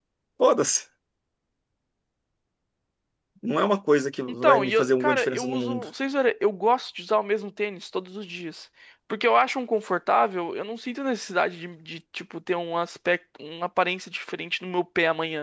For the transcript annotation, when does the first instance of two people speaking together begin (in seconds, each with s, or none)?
4.3 s